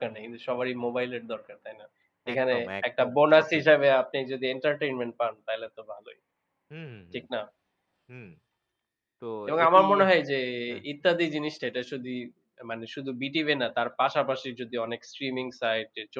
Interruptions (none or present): present